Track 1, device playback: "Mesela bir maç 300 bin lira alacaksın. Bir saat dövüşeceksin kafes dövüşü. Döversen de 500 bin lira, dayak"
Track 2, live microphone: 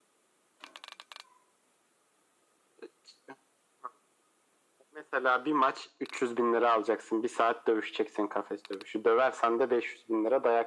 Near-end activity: none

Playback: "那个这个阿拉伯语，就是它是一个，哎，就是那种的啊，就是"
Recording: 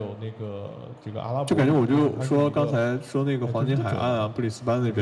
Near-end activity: present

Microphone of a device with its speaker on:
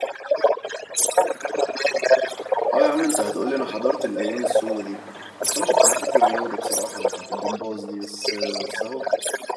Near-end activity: present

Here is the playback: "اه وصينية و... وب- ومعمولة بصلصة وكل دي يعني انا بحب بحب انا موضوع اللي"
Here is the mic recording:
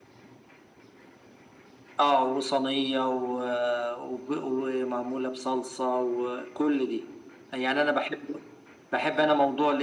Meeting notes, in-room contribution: none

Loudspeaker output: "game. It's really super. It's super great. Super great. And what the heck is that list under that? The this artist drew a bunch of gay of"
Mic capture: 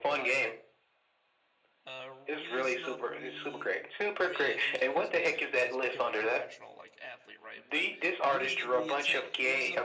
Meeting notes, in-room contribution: present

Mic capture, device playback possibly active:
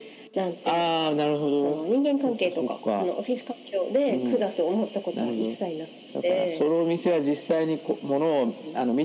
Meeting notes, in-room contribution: none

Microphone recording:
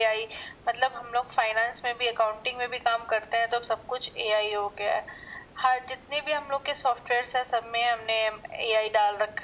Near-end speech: none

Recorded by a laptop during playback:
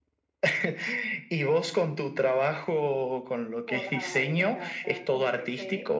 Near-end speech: present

